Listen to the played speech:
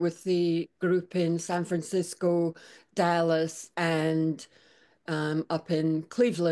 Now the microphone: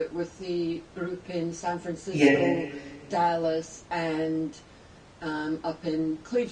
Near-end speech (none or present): present